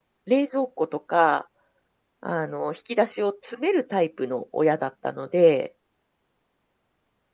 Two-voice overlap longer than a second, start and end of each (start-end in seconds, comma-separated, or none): none